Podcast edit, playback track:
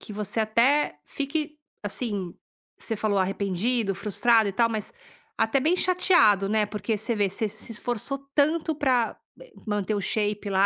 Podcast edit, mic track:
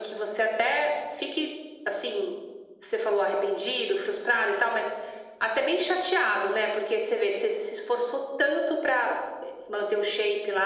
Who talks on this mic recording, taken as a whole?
echo only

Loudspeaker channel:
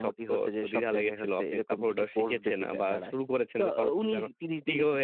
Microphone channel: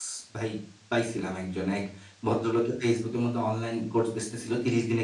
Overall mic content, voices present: user only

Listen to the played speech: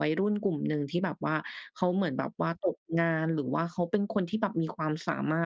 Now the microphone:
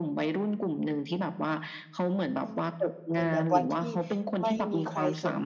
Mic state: both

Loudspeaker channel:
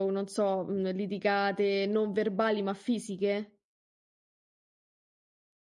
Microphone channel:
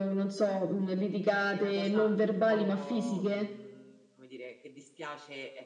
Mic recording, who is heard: both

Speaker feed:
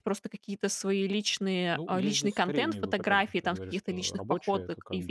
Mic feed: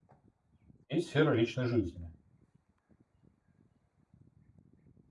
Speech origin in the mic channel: user only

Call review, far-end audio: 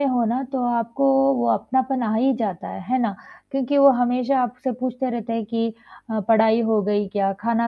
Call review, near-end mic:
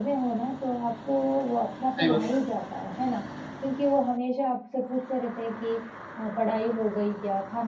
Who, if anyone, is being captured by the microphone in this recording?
both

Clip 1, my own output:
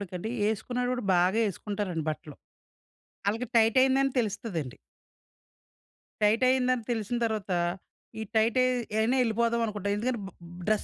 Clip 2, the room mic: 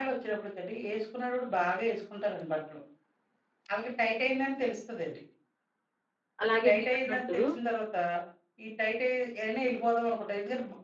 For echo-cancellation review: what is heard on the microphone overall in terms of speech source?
both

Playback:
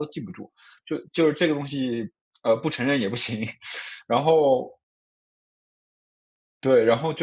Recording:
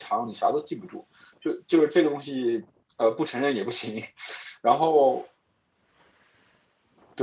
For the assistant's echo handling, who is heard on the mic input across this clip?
echo only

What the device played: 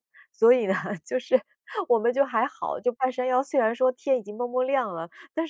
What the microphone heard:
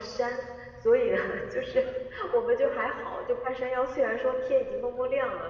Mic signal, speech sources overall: echo only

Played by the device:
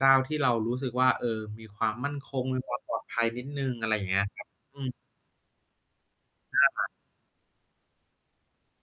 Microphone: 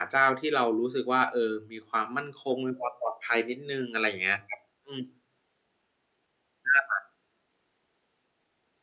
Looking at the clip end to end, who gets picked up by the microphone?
echo only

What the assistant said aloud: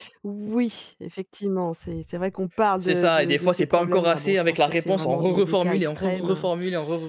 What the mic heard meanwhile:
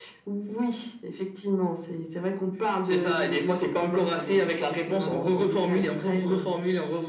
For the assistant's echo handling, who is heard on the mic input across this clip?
echo only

